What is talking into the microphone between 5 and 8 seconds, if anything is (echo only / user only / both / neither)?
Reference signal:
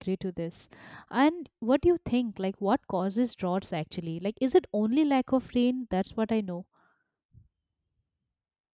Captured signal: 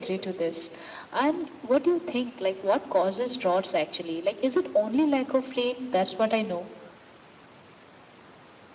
echo only